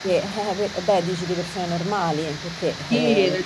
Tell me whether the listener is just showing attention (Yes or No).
No